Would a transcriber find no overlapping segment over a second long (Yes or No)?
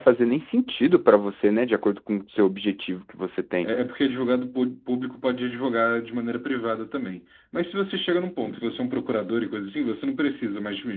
Yes